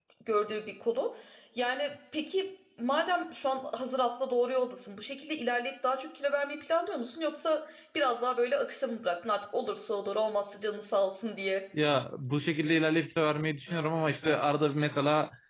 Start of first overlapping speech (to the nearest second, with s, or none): none